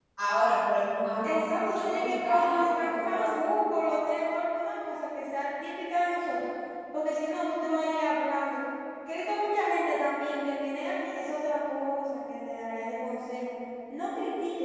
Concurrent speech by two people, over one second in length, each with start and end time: 1.2-3.3

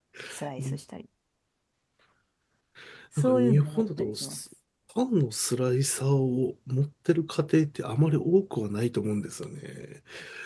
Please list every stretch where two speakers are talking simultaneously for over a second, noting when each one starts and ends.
3.2-4.4

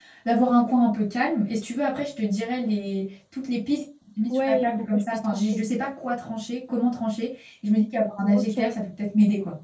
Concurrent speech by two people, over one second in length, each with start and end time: 4.3-5.6

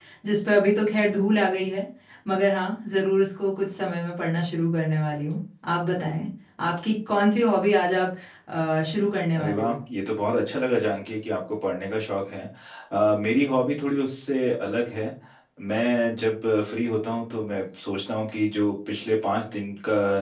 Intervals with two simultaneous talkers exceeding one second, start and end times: none

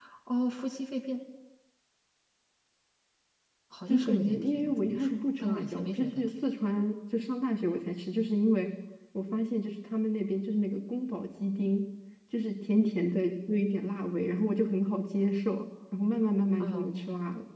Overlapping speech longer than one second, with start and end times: 3.9-6.3

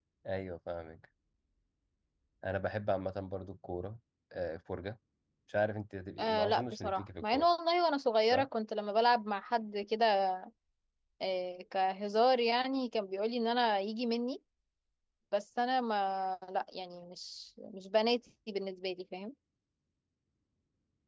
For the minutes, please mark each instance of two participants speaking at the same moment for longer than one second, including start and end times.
6.2-7.5

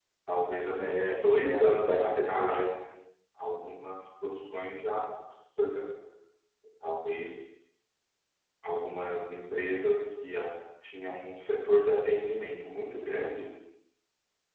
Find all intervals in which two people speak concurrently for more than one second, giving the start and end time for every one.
0.8-2.6

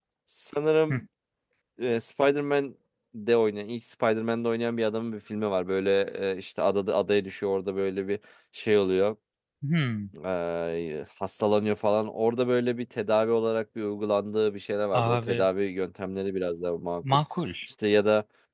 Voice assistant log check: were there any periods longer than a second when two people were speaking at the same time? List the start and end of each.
none

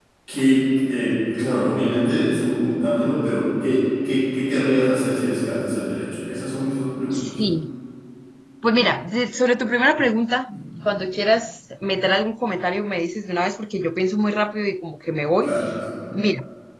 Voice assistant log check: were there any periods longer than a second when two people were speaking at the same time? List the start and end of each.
none

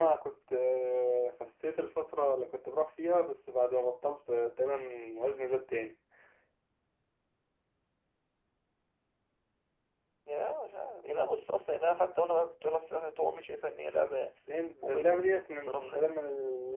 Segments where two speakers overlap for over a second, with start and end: 14.8-16.1

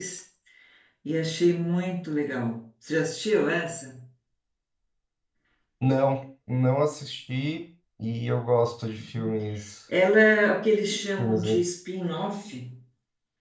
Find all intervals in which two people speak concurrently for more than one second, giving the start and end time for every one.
none

